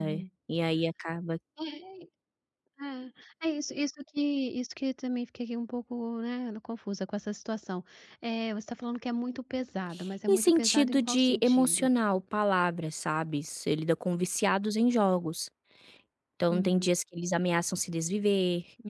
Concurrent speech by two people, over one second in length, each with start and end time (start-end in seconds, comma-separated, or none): 10.3-11.9